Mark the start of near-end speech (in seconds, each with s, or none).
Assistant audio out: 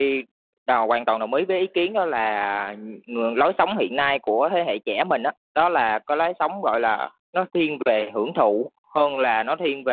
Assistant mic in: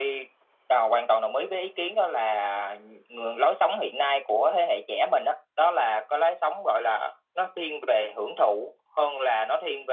none